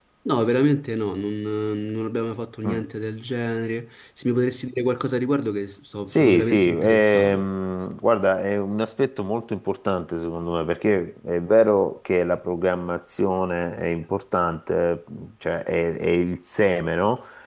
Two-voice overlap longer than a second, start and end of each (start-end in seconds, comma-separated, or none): 6.1-7.4